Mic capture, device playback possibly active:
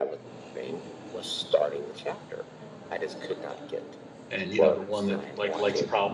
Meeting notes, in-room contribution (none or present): present